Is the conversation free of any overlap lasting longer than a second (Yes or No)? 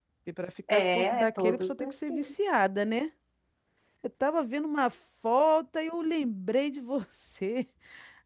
No